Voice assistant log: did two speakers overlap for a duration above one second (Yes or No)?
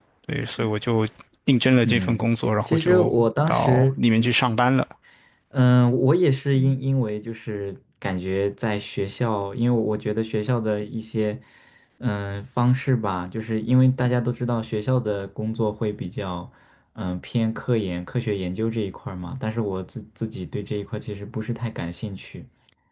Yes